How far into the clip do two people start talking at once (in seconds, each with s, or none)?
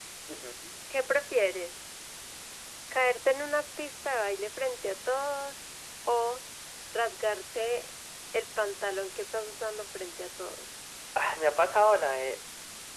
none